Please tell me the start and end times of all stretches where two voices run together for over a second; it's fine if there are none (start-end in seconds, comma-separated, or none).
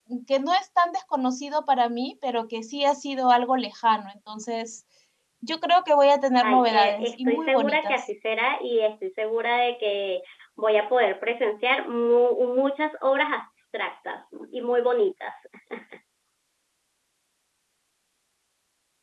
6.4-8.0